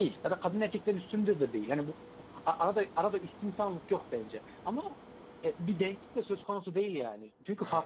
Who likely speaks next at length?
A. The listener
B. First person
B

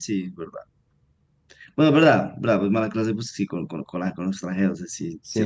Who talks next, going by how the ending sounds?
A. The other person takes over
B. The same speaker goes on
A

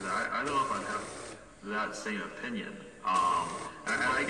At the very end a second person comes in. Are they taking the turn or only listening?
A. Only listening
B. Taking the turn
A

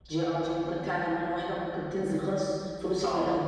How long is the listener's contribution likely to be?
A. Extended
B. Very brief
A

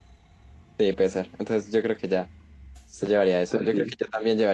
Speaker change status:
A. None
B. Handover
A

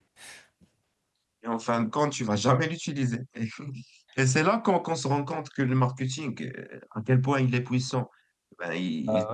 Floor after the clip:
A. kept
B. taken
A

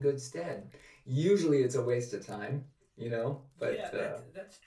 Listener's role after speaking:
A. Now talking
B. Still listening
A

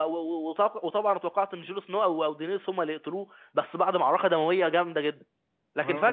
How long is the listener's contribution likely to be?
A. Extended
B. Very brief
A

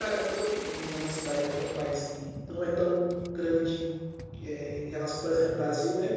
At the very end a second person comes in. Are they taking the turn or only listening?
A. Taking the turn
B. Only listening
B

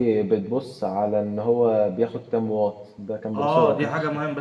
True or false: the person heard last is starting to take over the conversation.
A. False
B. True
B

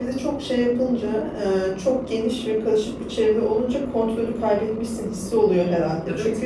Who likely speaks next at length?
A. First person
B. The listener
A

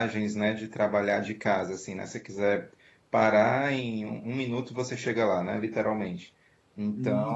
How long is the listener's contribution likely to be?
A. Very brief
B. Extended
B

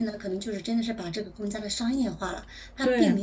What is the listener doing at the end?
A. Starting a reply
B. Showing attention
B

